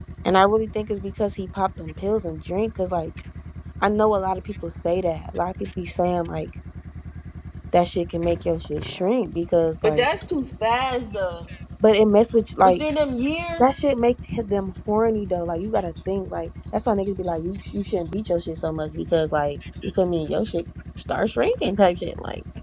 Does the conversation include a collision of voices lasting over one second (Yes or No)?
No